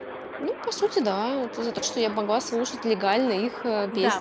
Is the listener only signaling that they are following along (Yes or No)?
No